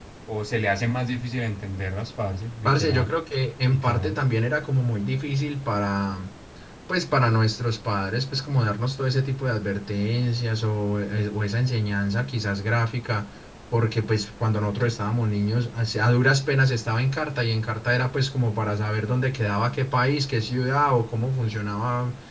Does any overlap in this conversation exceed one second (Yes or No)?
No